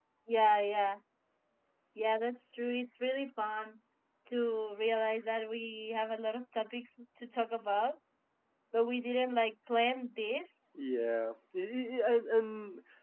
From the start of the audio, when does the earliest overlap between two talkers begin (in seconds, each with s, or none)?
none